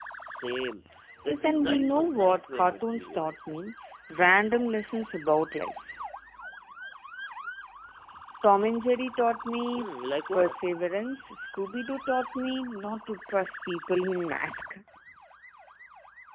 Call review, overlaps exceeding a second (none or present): present